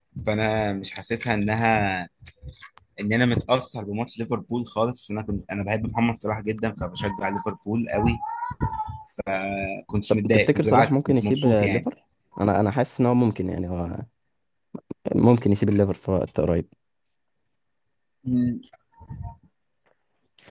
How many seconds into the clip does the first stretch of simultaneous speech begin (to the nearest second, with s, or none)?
10 s